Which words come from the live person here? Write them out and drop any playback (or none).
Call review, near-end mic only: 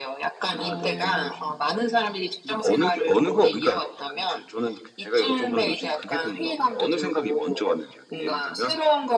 어.